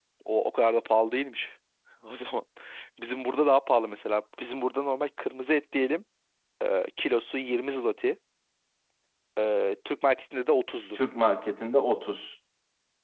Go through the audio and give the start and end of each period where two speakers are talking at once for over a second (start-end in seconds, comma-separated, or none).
none